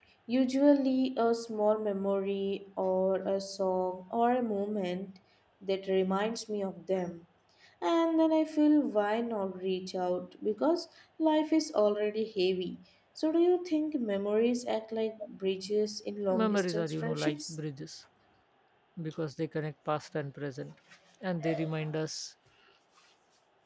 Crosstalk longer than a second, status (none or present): present